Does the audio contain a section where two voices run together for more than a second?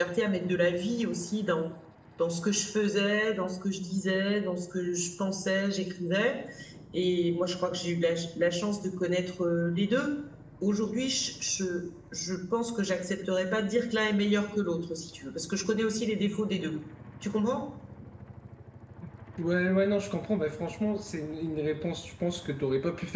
No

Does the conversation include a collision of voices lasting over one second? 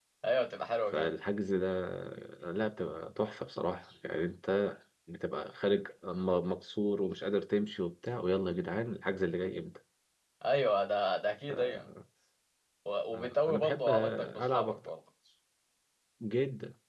Yes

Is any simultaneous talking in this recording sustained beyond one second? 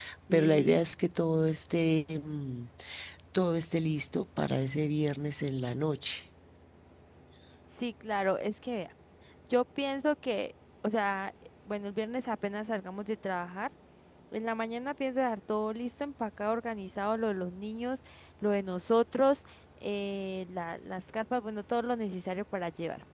No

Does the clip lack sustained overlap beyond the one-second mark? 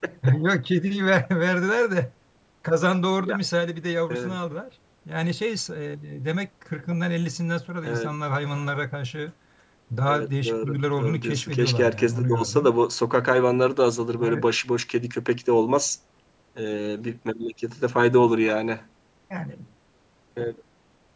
No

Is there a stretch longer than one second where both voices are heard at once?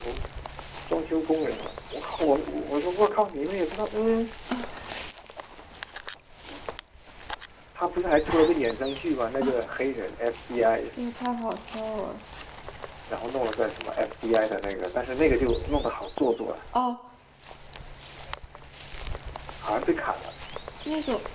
No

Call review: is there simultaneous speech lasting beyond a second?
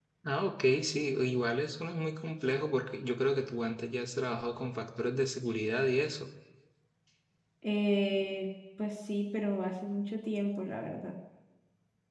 No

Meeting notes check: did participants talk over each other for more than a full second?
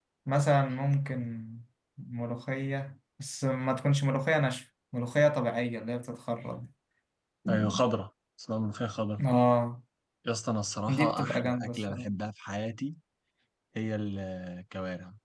Yes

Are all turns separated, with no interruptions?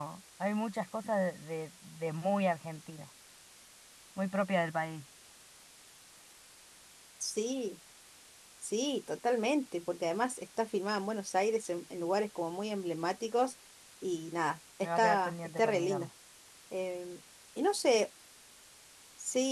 No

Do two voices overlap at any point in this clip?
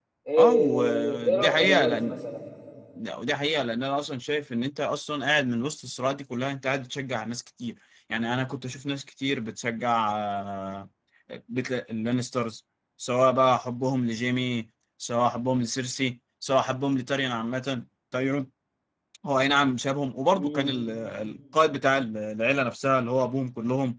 Yes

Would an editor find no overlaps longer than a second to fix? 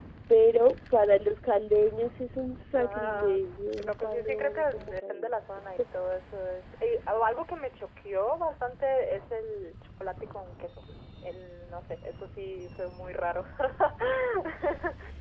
No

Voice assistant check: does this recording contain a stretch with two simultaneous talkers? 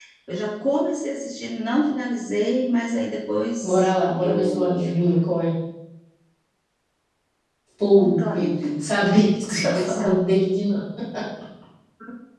Yes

